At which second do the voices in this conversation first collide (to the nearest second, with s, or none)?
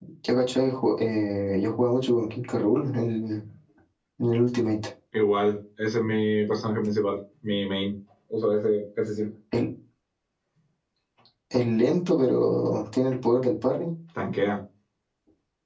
none